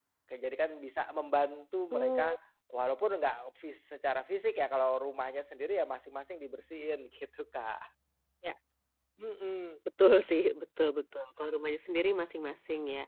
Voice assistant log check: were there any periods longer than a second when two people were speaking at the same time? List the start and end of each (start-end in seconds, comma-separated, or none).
none